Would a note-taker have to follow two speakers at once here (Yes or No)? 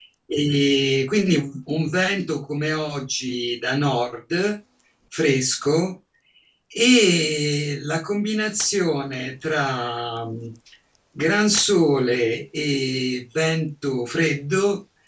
No